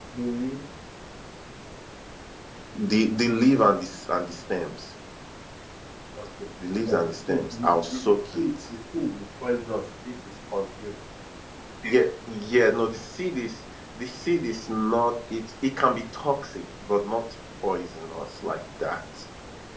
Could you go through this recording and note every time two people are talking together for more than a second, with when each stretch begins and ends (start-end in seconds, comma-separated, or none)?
6.7-8.4